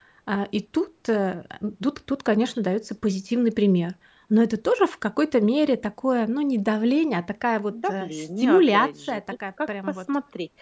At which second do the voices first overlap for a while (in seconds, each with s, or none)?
7.7 s